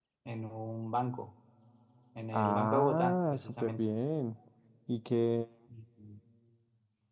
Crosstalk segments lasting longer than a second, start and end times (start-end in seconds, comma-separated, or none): 2.3-3.8